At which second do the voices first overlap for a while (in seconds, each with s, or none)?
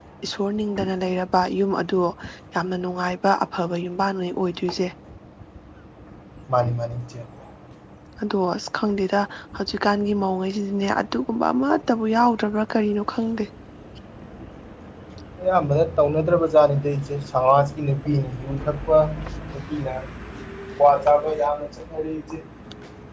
none